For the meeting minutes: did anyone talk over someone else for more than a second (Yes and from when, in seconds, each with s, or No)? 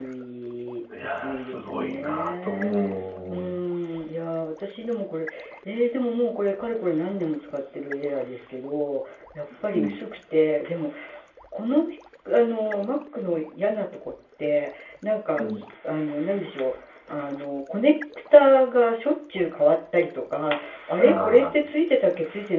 Yes, from 1.0 s